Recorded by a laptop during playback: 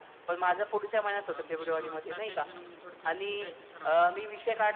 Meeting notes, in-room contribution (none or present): present